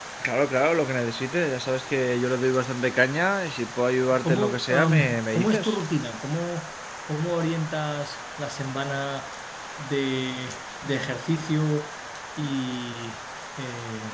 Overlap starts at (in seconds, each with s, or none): 4.1 s